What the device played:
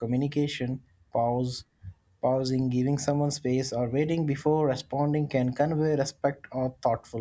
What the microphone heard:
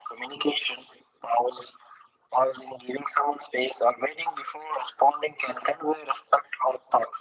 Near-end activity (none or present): none